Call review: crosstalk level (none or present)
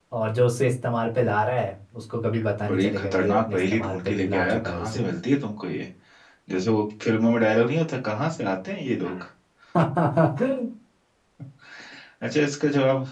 present